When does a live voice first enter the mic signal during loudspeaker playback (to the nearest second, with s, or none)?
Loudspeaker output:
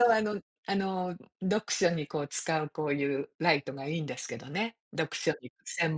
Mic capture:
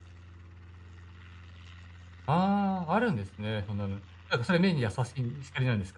2 s